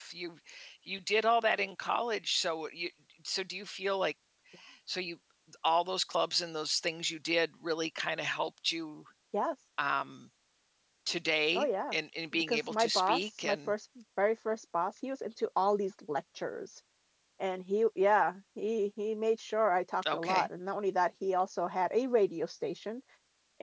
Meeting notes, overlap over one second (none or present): present